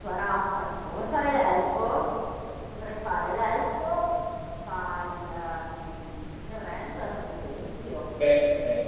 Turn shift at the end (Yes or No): Yes